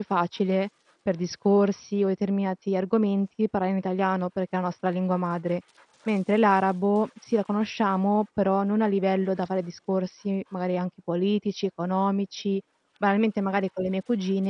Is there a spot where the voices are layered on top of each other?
No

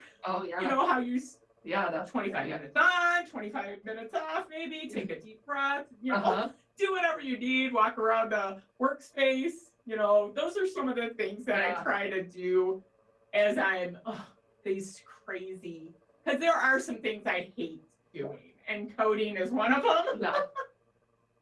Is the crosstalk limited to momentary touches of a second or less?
Yes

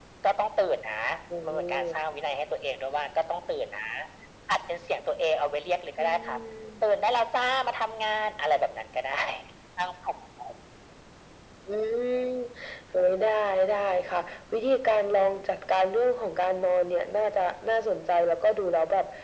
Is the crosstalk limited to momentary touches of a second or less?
Yes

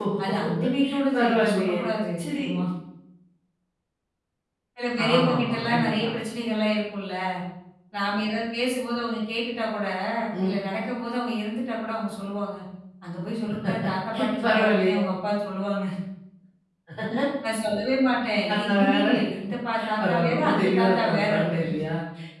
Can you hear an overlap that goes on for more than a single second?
Yes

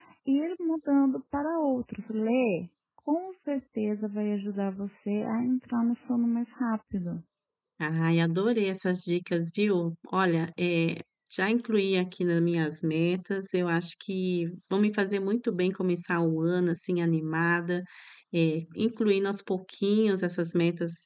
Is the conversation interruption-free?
Yes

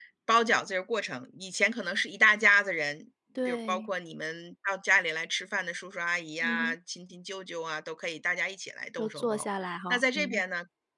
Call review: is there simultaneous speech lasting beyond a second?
Yes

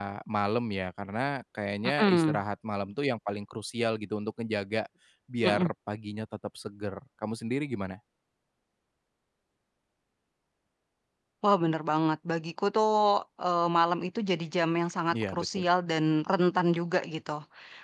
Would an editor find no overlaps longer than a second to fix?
Yes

